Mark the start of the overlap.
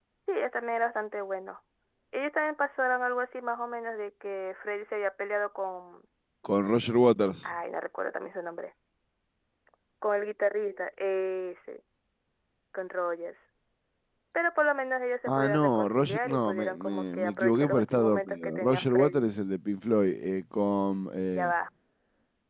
15.3 s

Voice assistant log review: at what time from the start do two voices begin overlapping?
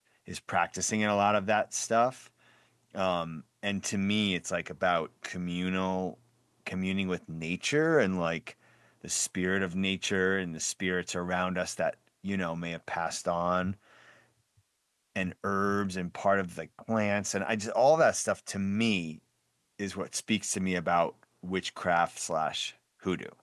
none

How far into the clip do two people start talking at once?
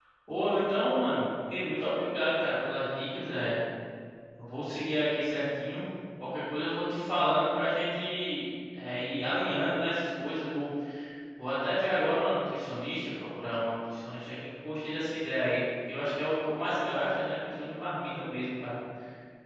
none

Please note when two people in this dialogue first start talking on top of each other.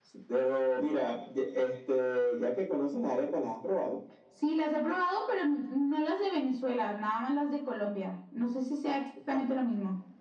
none

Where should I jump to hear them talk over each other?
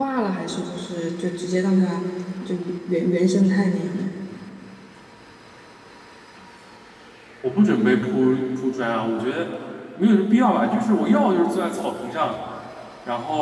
none

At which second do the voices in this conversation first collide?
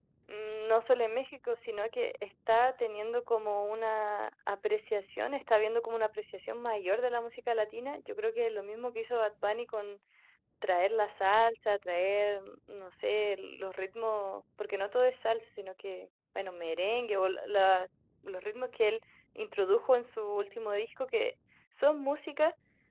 none

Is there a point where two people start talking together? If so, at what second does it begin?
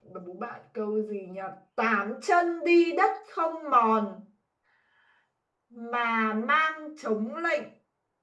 none

